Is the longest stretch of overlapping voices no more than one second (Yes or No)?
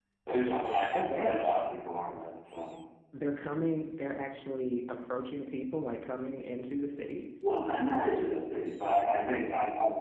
Yes